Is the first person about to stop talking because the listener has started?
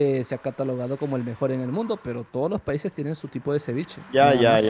Yes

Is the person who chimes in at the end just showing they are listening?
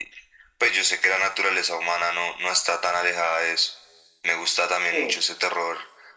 Yes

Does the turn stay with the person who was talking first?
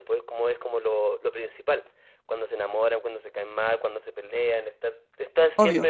Yes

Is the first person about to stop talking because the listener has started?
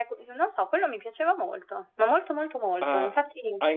Yes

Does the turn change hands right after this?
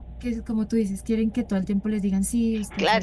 Yes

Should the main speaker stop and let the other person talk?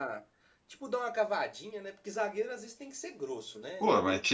Yes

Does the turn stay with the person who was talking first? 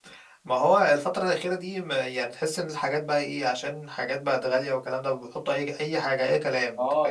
No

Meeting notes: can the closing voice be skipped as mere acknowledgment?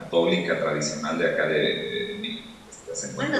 No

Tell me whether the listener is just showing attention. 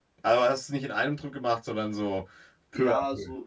No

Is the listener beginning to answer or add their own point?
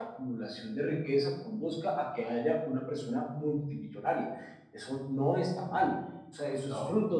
No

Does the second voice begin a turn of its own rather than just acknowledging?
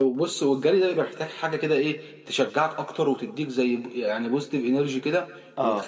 No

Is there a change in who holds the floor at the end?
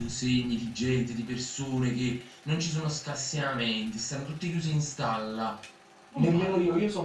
Yes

